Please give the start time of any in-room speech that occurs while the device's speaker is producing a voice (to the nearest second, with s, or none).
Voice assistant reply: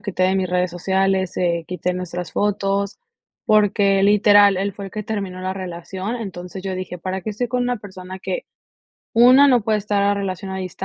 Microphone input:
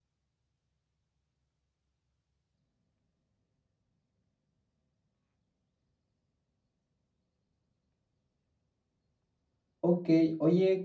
10 s